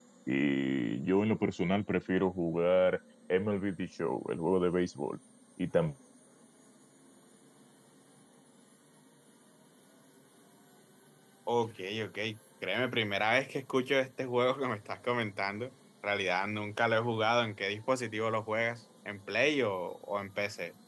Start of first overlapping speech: none

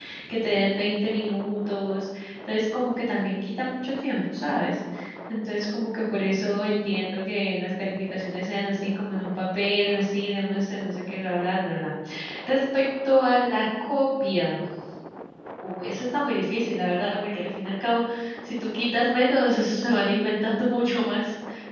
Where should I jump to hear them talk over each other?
none

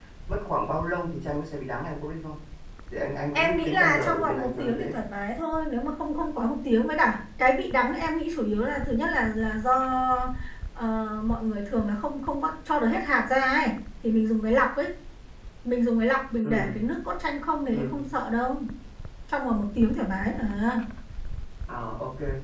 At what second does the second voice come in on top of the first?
3 s

